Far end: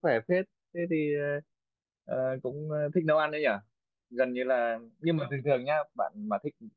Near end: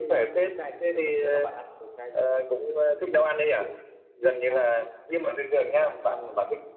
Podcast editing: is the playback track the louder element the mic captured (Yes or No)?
Yes